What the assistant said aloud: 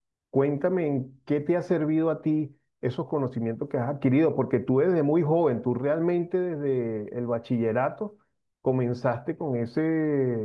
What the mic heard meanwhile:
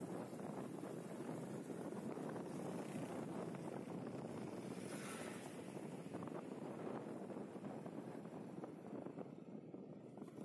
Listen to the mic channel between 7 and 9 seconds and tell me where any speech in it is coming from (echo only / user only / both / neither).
neither